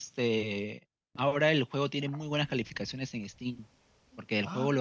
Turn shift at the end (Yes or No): No